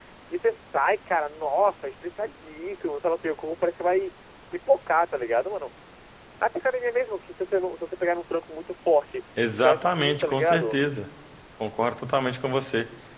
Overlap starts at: 9.4 s

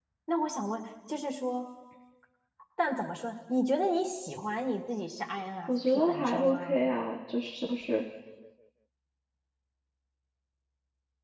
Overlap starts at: 5.7 s

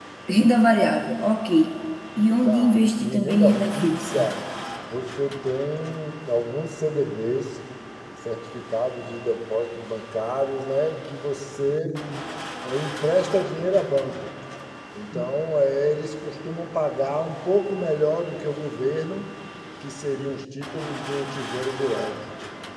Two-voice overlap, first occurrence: 2.4 s

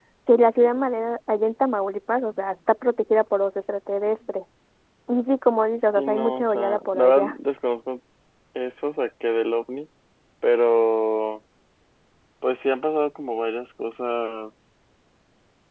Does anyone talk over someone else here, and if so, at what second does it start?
6.0 s

